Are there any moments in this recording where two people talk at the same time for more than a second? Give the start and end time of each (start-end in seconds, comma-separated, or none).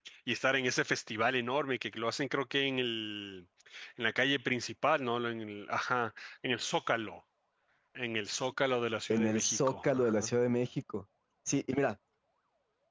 9.1-10.3